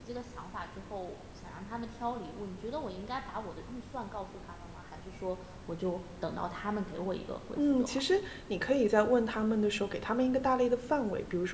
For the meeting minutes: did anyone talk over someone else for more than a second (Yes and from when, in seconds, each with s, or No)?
No